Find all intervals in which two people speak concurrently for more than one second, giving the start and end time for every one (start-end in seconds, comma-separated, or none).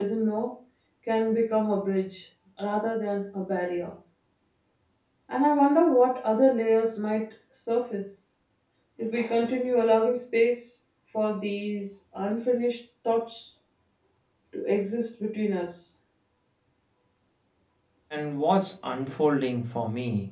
none